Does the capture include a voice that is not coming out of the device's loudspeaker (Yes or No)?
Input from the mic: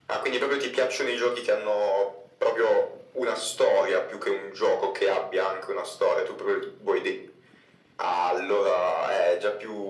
No